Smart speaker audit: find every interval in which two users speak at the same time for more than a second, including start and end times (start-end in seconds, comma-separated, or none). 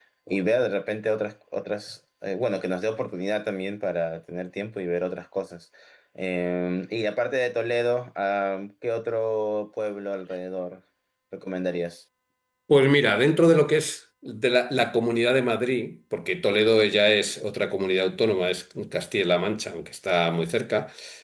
none